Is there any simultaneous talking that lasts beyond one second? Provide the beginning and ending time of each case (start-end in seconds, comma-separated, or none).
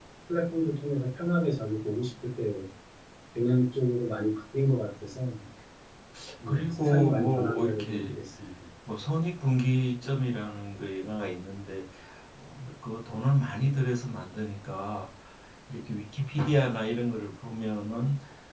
6.5-8.1